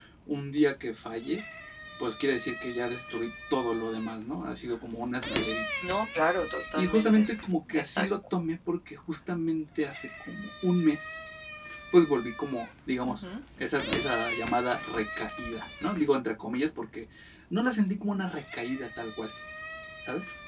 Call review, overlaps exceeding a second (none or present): none